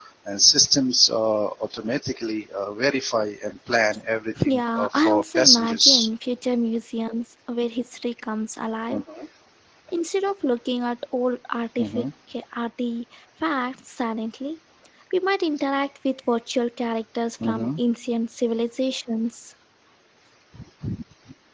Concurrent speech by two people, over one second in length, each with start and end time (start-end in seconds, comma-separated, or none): 4.5-6.1